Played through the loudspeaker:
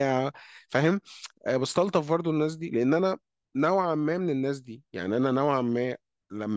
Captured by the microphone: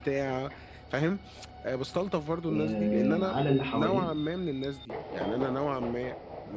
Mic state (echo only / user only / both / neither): both